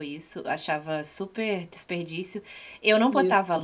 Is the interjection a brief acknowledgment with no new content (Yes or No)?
Yes